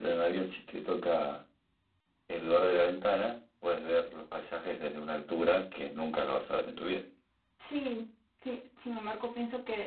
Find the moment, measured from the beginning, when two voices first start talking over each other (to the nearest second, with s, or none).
none